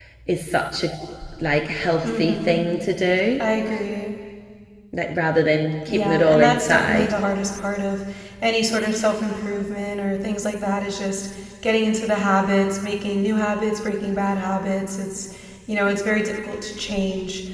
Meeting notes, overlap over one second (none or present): present